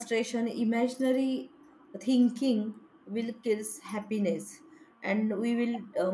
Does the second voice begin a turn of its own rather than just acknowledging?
No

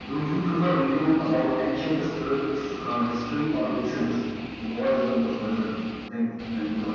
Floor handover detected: Yes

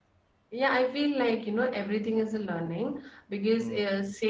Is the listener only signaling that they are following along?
Yes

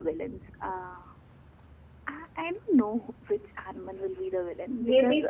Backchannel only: No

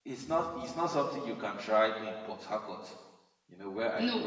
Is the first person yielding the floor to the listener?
No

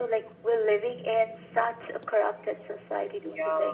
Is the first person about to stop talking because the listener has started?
Yes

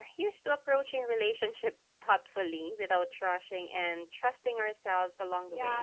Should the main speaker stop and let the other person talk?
Yes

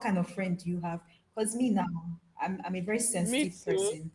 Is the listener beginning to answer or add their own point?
No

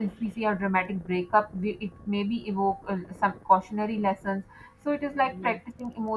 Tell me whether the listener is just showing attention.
Yes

